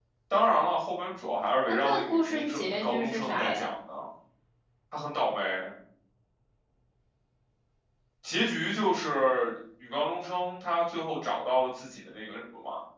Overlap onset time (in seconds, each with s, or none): 1.7 s